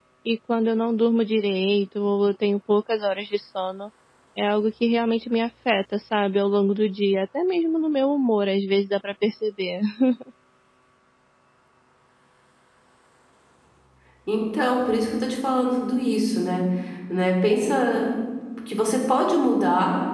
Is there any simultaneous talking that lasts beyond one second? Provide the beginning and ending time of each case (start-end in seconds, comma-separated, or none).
none